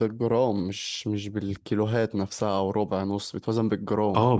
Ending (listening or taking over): taking over